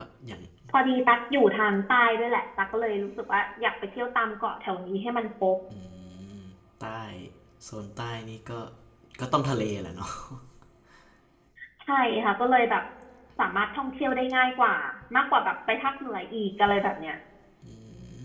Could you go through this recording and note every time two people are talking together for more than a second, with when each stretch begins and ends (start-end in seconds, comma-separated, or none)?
none